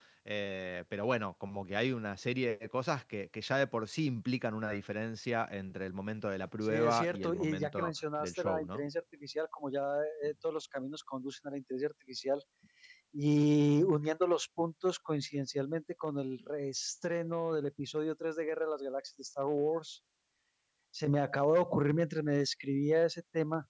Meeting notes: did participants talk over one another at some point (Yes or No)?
Yes